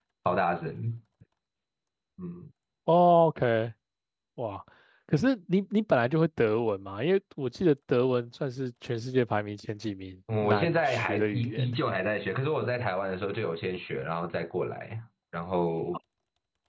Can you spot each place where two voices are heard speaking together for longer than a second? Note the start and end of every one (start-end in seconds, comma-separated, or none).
10.4-11.7